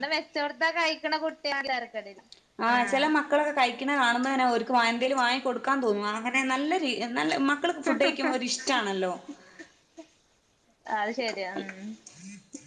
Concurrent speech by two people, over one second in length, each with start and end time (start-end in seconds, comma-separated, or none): none